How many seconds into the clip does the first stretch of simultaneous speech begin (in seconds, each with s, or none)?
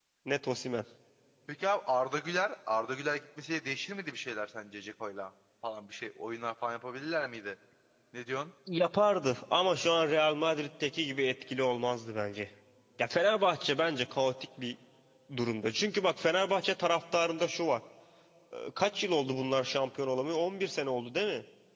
none